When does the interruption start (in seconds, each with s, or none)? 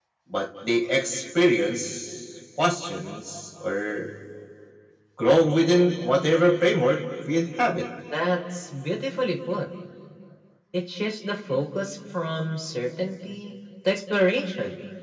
none